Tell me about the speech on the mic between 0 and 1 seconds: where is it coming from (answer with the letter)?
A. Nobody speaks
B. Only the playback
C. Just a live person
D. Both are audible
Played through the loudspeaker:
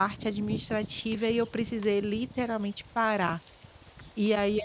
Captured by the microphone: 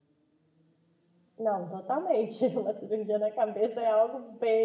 A